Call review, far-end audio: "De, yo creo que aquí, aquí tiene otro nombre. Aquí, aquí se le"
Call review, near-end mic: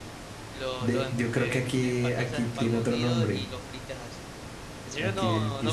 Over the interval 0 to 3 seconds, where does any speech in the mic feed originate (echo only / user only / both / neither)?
both